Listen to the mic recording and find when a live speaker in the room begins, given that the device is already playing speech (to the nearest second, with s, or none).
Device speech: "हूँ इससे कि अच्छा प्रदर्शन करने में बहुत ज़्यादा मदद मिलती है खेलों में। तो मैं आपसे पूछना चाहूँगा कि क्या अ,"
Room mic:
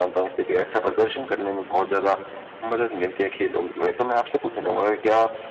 none